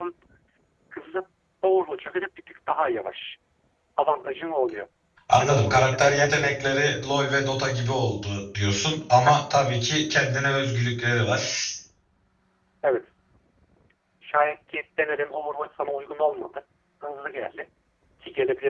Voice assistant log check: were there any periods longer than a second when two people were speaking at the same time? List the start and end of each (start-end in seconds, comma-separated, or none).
5.4-6.6